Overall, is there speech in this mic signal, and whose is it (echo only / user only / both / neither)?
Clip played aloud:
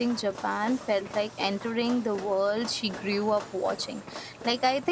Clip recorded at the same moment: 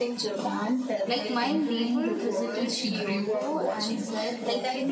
both